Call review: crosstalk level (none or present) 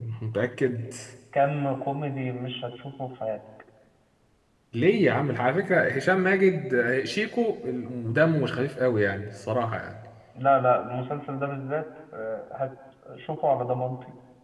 none